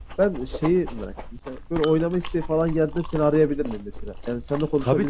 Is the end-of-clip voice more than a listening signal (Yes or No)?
Yes